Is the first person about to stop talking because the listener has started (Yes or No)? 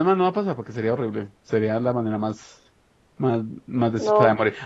No